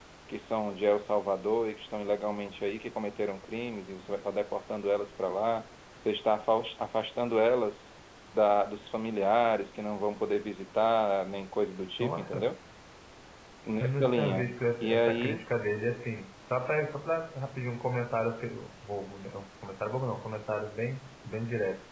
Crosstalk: present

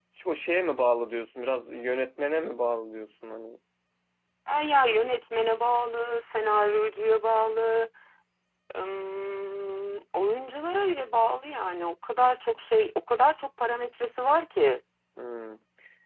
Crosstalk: none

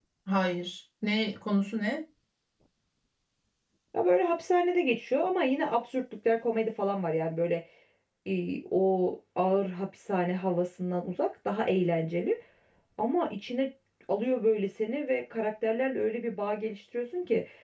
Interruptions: none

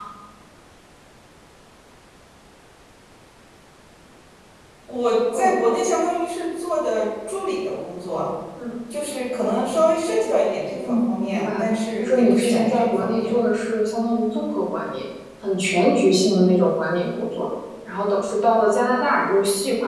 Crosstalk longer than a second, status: present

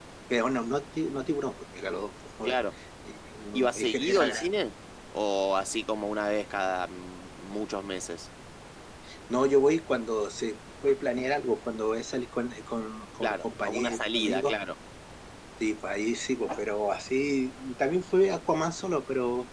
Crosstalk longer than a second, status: present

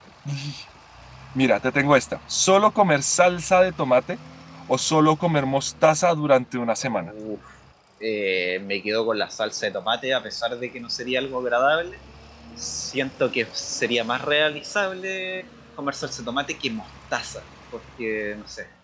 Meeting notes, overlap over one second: none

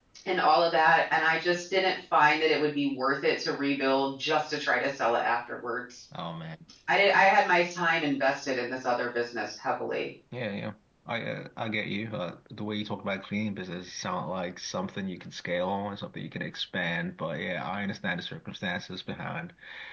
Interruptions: none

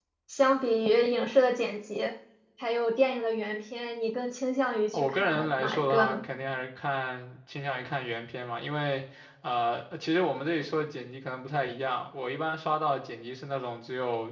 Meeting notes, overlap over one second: present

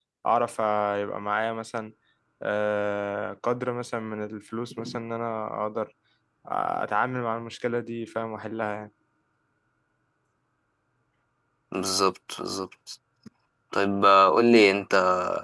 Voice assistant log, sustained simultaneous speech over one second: none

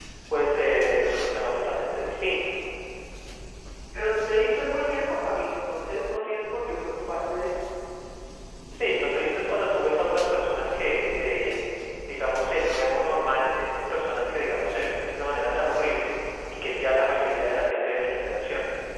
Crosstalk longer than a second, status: none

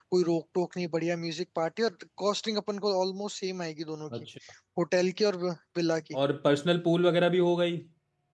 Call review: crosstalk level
none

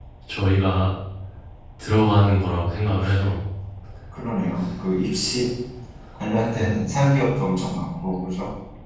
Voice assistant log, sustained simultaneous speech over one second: none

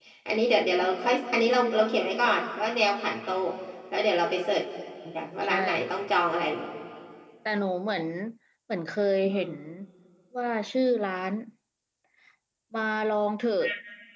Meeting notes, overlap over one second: none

